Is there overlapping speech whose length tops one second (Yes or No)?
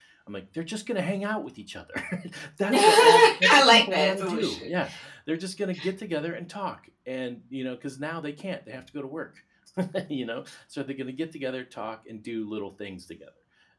Yes